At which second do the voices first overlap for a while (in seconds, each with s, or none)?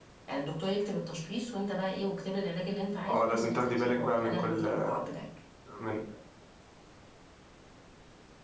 3.1 s